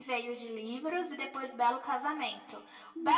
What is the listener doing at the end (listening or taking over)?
listening